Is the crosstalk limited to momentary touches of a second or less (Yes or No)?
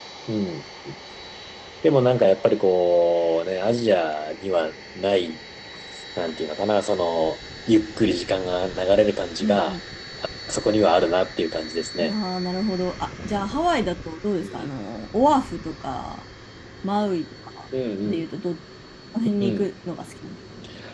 Yes